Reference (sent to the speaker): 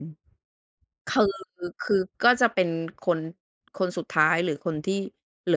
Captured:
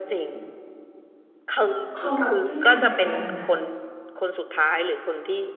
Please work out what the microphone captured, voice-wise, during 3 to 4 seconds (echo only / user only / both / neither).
both